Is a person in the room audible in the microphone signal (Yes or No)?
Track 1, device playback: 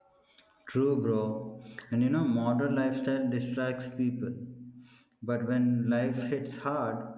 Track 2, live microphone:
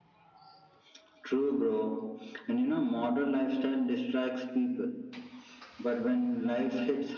No